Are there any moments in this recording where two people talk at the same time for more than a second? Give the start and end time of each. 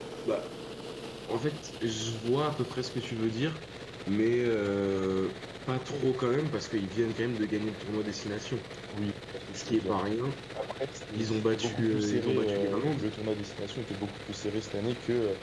11.2-13.0

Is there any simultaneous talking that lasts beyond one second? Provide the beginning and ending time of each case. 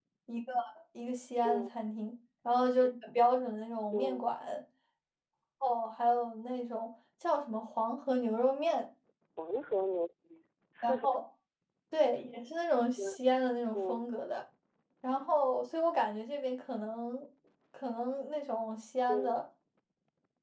none

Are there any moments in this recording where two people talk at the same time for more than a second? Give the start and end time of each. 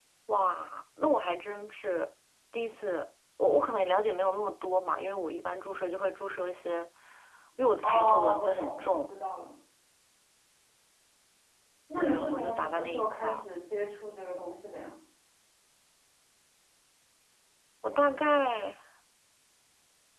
7.8-9.1, 12.0-13.4

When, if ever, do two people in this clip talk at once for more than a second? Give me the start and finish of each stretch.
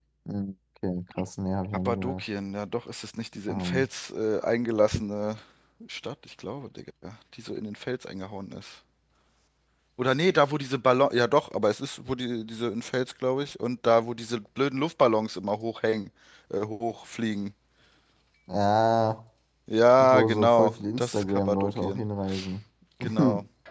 20.0-22.0

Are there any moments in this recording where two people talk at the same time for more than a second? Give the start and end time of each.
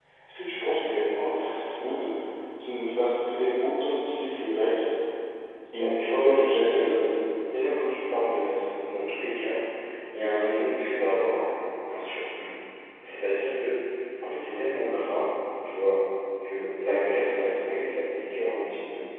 5.7-6.9

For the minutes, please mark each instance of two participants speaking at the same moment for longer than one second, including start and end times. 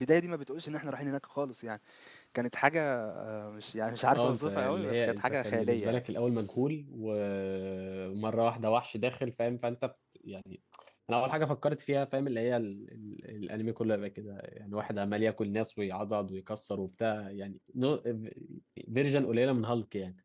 4.2-6.0

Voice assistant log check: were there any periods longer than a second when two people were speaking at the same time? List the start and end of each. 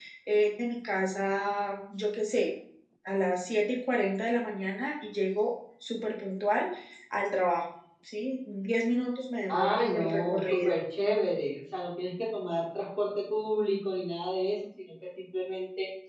9.5-10.8

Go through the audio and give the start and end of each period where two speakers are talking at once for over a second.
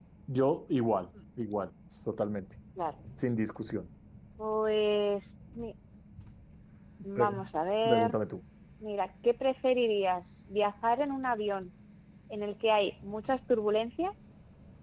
none

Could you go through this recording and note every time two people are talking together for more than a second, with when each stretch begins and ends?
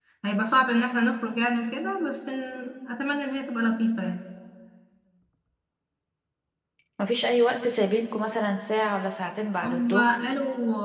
none

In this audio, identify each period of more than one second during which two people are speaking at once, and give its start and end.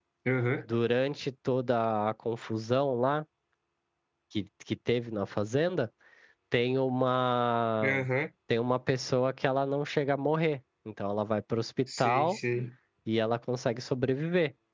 none

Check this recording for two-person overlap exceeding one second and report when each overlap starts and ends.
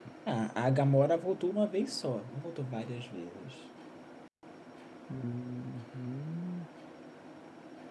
none

